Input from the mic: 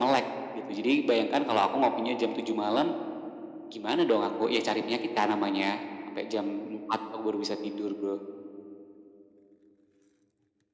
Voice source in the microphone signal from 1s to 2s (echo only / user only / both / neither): echo only